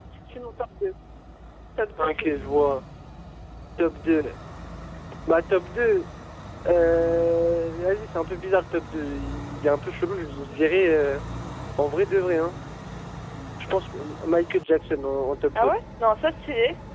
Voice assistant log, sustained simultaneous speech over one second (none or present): none